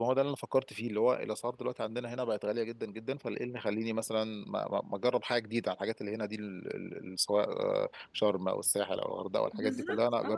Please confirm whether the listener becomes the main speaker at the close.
Yes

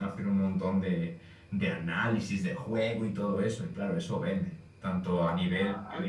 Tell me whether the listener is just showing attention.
No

